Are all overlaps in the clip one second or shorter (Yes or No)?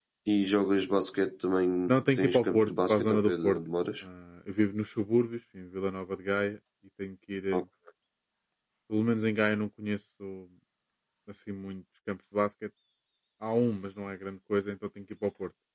No